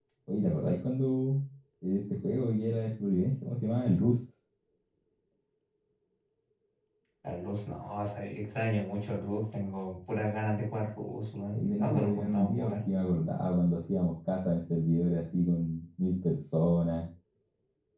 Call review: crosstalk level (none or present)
present